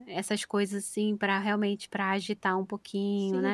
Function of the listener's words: taking over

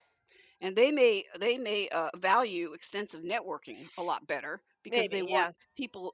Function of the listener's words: listening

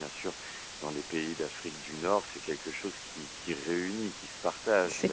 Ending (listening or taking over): listening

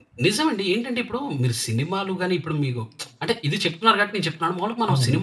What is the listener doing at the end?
listening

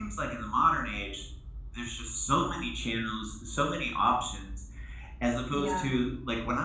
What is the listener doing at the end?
listening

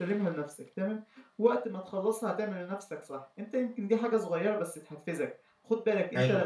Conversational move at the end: listening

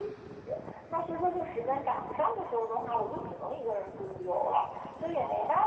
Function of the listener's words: listening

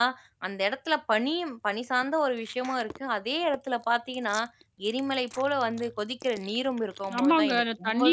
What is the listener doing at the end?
taking over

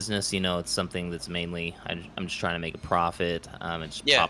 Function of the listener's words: listening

